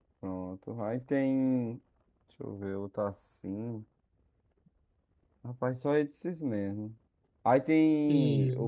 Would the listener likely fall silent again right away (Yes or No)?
Yes